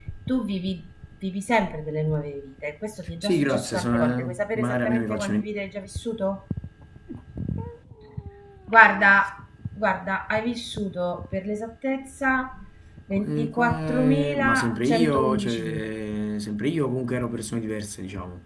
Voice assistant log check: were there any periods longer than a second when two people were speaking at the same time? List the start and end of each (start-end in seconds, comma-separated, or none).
3.2-5.4, 13.3-15.9